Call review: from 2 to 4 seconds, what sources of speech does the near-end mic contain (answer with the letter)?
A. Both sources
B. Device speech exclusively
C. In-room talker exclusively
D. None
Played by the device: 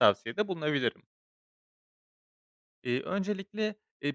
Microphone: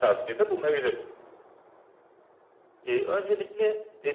B